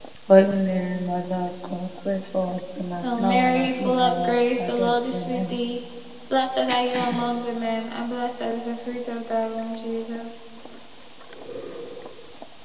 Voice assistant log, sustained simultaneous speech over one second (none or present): present